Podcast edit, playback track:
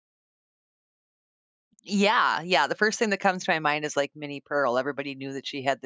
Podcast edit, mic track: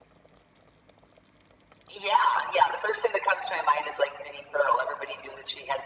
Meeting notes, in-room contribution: none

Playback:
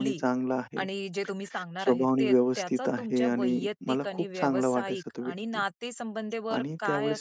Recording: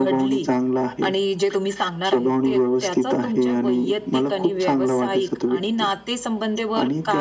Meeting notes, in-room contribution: none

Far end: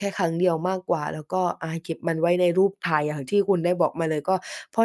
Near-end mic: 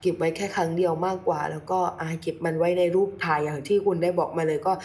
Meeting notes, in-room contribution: none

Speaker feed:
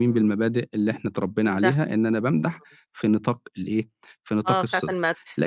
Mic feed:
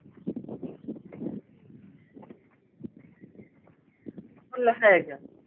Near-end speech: present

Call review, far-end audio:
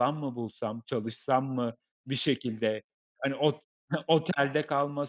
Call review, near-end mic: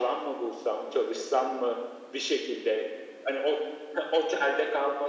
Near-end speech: none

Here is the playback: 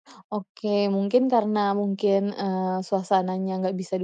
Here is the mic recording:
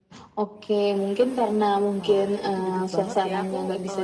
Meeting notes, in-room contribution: present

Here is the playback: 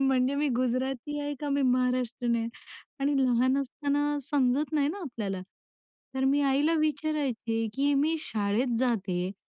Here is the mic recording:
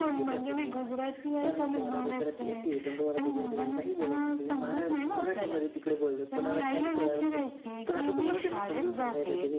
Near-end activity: present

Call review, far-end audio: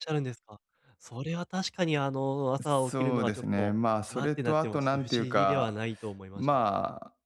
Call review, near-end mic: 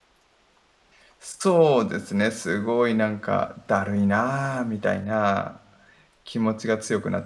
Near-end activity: present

